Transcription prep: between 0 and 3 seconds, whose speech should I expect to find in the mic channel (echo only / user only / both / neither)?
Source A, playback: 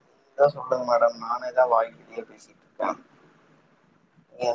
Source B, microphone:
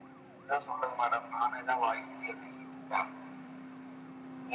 echo only